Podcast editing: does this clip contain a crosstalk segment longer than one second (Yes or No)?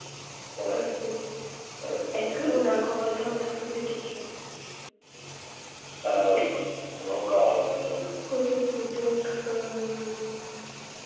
No